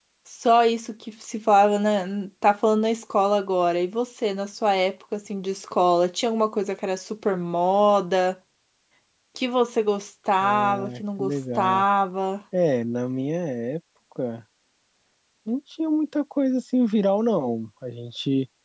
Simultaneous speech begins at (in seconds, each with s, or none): 10.4 s